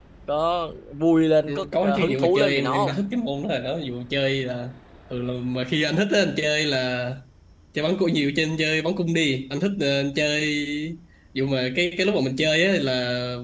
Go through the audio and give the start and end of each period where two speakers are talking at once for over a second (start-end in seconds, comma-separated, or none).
1.5-3.0